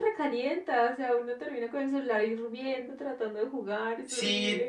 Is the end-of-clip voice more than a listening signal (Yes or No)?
Yes